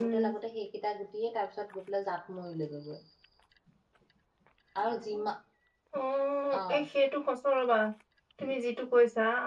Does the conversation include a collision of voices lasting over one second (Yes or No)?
No